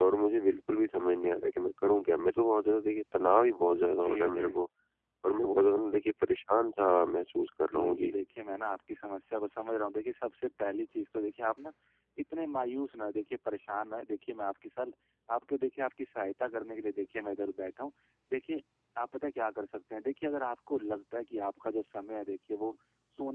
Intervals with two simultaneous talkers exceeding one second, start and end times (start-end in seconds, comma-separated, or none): none